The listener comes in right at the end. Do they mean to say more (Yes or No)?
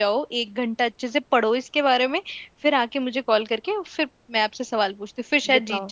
Yes